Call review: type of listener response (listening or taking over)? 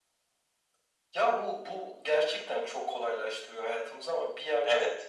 listening